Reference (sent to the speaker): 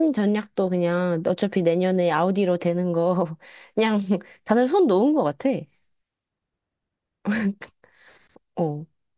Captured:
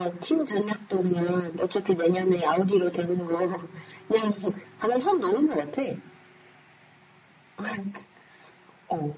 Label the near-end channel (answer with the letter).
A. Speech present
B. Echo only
B